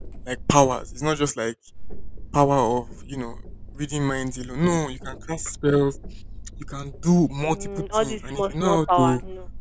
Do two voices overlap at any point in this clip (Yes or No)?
Yes